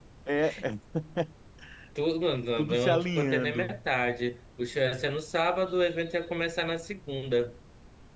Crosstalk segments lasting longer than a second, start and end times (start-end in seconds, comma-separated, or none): 2.6-3.8